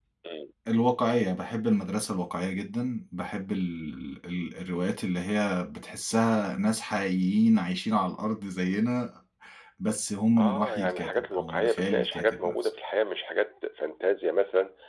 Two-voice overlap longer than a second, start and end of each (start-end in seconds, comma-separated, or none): 10.4-12.5